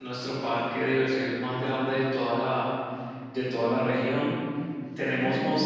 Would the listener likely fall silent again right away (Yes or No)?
Yes